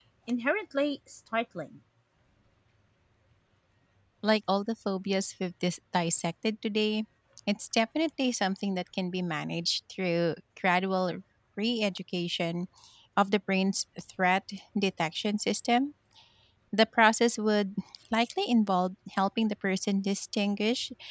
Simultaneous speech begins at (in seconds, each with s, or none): none